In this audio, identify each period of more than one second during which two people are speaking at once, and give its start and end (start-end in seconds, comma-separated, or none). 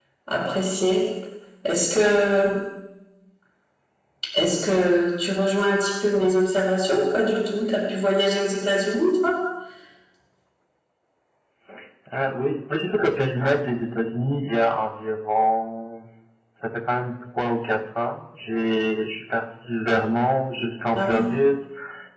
none